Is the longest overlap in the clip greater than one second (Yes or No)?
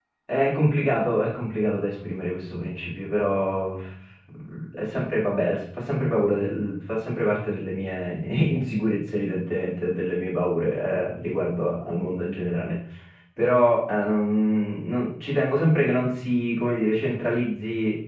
No